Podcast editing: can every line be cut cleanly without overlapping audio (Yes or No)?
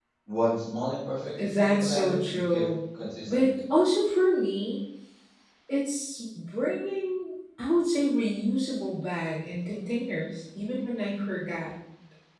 No